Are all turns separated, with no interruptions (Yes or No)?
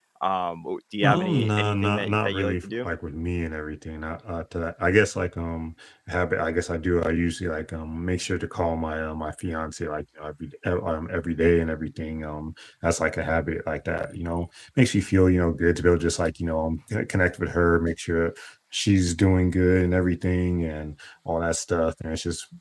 No